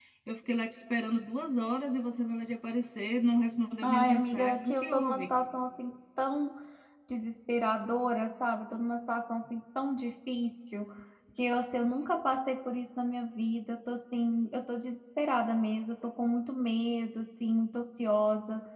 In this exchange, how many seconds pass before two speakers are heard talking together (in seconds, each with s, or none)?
3.8 s